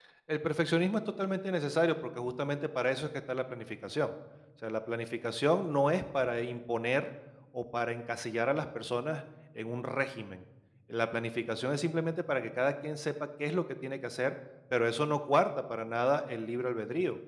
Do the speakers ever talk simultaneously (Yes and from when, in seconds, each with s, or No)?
No